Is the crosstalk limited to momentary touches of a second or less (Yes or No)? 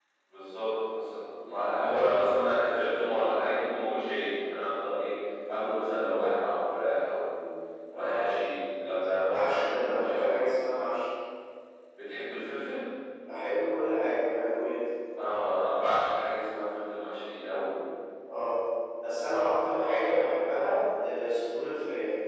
No